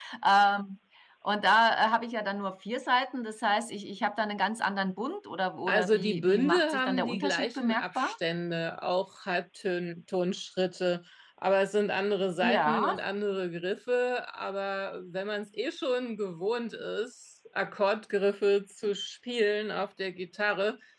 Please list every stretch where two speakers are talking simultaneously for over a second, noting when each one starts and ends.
5.7-8.1

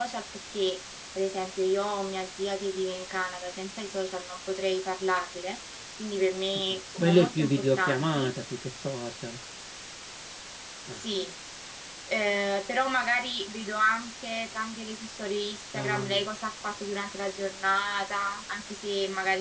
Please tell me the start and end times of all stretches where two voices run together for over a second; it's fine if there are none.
7.0-8.3

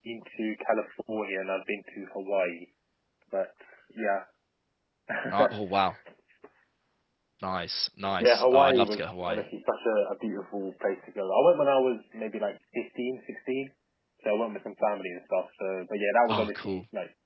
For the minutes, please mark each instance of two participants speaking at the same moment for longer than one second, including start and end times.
8.2-9.4

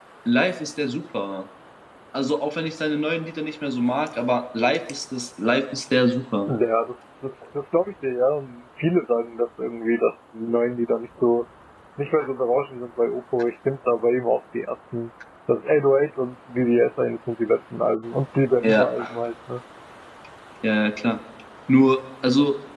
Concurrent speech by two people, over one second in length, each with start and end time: none

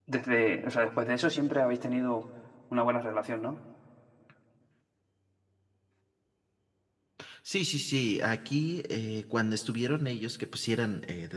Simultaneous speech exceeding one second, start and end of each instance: none

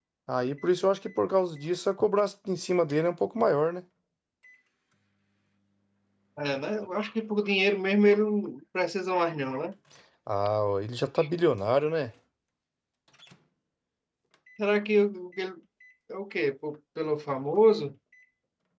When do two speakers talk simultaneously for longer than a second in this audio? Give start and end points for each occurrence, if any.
none

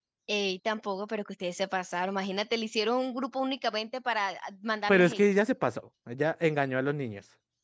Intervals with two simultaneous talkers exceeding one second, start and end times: none

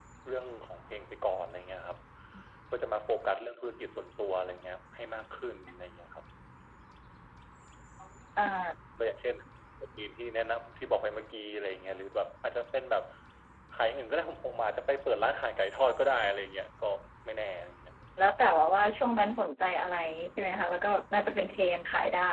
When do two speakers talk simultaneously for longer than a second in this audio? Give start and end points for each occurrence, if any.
none

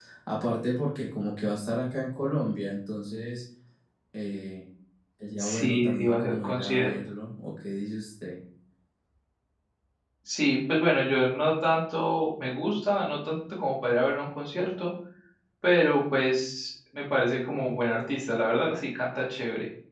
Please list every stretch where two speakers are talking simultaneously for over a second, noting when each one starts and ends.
5.4-6.9

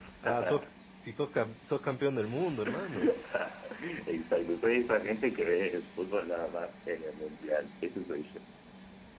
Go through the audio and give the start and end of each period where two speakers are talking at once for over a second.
none

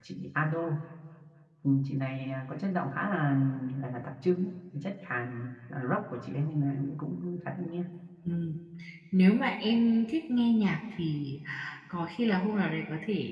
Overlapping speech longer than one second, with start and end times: none

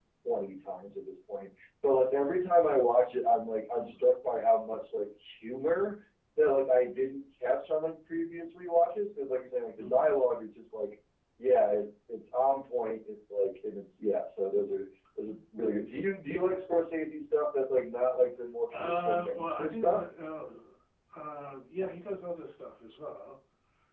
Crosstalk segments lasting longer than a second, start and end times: 18.7-20.0

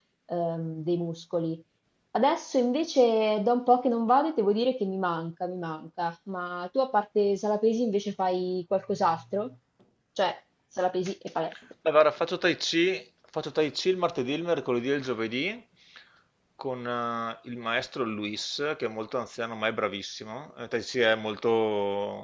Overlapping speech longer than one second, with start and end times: none

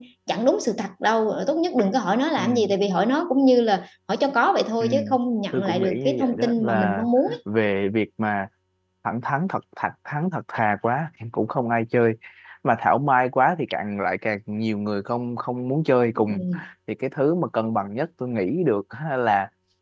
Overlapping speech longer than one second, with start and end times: 5.5-7.0

